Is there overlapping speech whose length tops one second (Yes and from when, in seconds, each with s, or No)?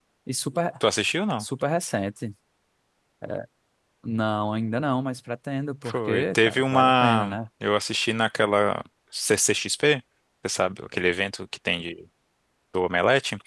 Yes, from 5.8 s